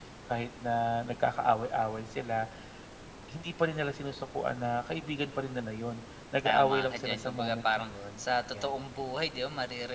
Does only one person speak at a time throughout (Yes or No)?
No